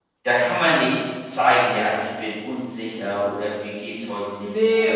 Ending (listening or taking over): taking over